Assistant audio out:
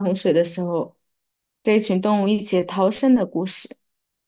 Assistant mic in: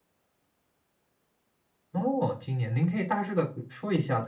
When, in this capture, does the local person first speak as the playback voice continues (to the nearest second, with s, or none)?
2 s